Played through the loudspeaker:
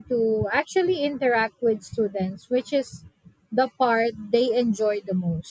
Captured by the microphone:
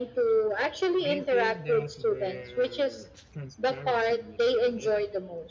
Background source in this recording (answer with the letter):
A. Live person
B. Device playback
A